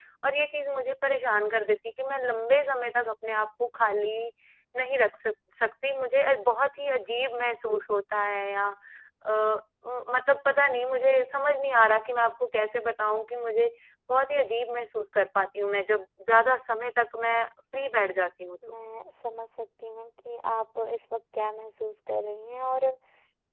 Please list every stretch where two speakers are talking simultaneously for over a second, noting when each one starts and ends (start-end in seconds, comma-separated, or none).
none